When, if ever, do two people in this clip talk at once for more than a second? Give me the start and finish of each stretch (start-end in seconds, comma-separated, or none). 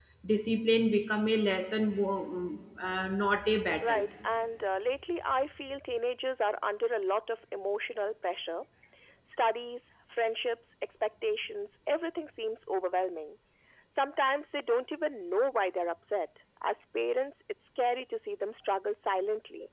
none